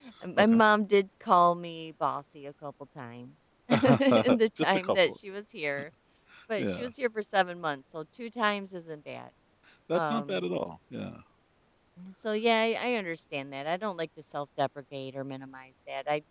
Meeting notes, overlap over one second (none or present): present